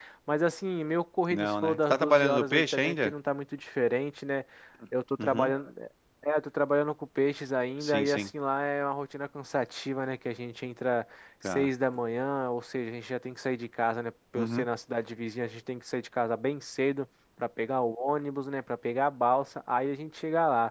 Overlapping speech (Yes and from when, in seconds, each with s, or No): Yes, from 1.3 s